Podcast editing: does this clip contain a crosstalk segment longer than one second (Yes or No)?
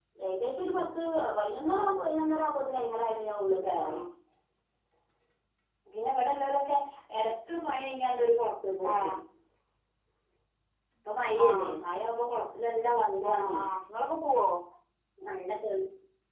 No